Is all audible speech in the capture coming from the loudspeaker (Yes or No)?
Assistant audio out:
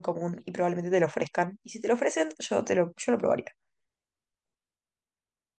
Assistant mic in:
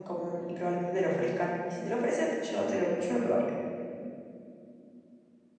Yes